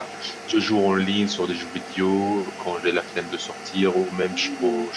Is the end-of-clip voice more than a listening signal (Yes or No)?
No